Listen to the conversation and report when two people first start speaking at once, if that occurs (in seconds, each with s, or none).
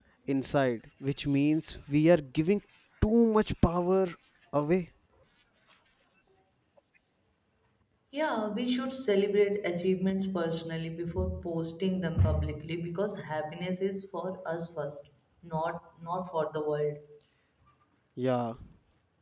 none